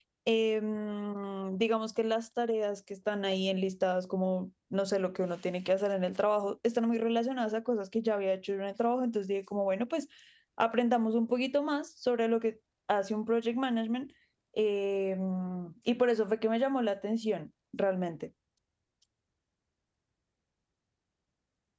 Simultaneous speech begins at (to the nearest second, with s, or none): none